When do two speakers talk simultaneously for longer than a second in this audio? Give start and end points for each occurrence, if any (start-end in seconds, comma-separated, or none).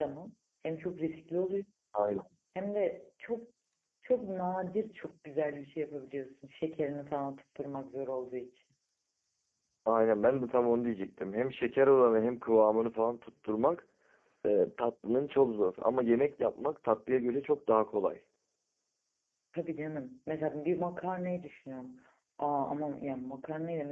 none